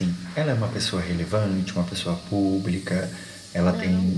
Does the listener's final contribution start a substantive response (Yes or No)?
No